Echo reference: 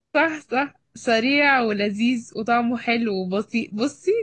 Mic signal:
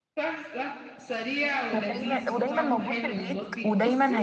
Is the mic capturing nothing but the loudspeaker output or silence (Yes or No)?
No